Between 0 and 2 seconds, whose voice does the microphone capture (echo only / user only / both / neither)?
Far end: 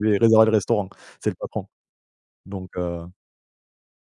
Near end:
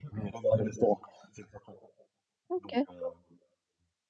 echo only